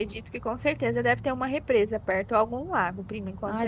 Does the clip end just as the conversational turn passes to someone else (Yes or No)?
Yes